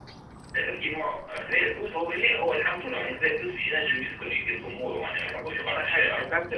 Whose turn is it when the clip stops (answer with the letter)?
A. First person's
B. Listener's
B